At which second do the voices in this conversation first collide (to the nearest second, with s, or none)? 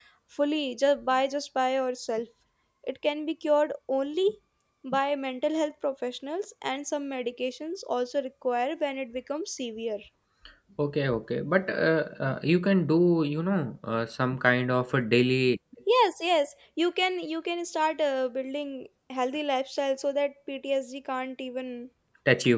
none